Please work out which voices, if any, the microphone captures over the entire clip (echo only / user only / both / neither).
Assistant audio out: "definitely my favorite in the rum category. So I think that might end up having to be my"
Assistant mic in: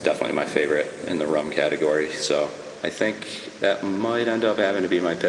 echo only